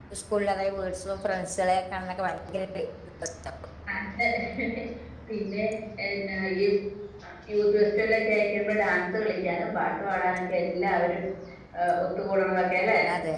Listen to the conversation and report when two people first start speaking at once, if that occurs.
none

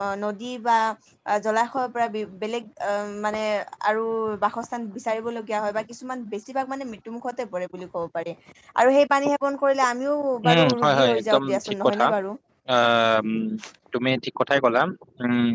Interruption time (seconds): 10.4 s

